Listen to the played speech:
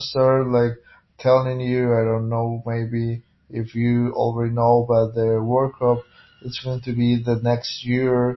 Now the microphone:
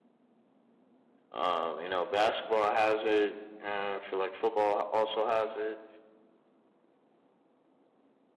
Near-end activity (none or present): present